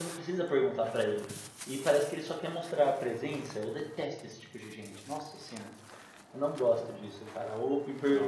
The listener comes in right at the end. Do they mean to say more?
No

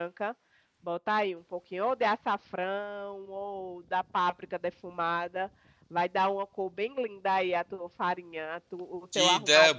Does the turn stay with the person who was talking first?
No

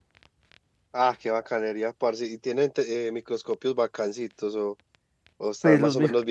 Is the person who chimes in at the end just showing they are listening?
No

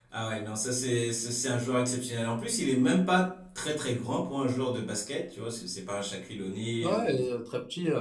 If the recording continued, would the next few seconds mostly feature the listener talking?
Yes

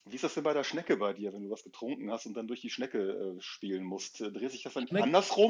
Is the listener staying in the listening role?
Yes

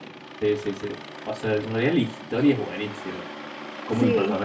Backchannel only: Yes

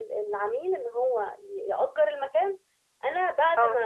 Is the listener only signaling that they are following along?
Yes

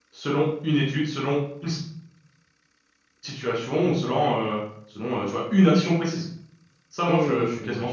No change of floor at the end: No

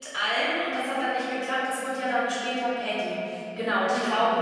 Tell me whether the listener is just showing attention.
Yes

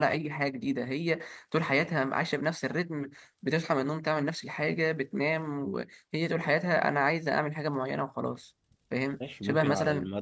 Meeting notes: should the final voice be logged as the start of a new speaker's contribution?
Yes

